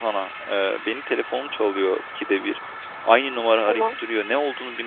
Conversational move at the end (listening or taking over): listening